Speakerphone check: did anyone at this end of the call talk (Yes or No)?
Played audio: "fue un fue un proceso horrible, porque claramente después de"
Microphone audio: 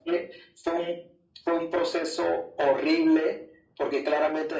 No